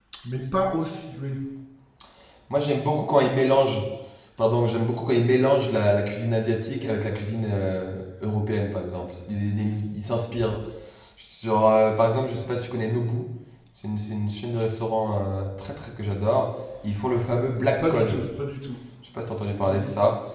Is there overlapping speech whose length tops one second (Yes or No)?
No